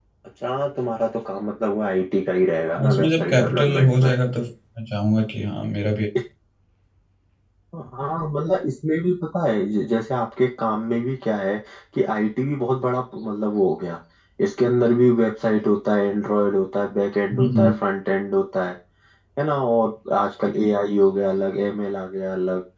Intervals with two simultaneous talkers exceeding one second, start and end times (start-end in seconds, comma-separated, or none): 2.8-4.1